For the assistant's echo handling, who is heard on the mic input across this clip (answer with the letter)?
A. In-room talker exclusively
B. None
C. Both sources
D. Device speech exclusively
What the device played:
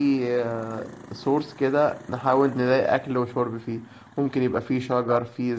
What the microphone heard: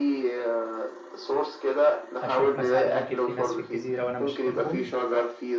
C